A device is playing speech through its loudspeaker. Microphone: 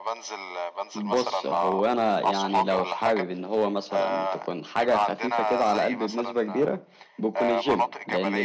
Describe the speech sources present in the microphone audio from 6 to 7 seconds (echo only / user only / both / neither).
both